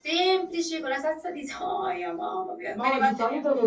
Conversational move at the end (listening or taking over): taking over